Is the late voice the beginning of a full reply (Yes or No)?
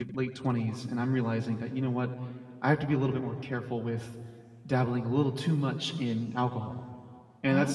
No